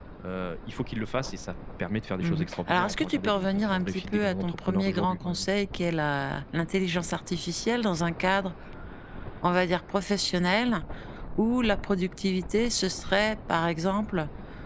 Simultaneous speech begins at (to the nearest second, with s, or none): 2 s